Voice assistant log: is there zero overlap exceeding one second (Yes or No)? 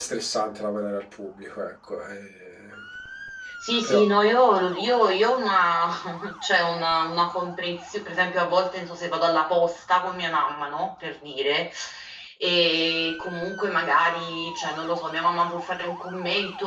Yes